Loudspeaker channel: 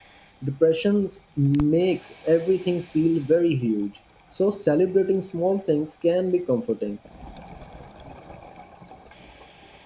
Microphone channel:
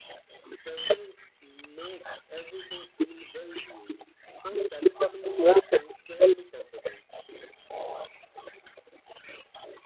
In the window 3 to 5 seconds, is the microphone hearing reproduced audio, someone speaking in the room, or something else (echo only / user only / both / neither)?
echo only